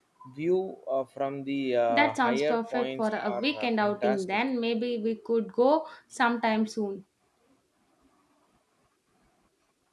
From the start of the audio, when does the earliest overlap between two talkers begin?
2 s

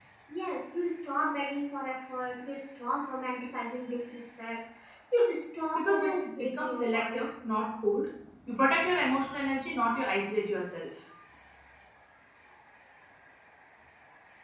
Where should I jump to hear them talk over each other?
6 s

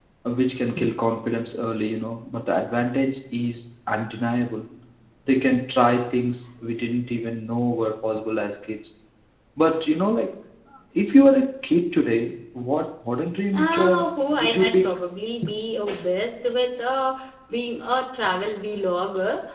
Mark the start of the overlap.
14 s

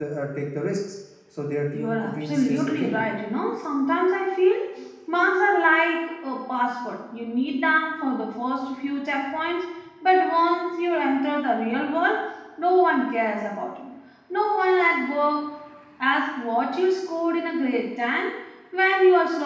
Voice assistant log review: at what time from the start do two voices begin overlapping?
2 s

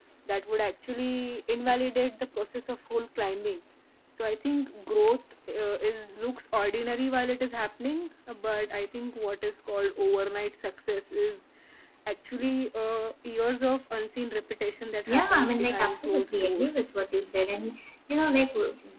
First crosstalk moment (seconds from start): 15 s

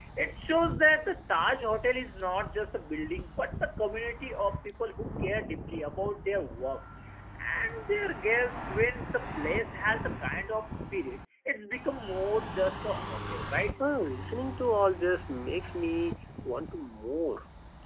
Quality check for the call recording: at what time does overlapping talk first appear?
none

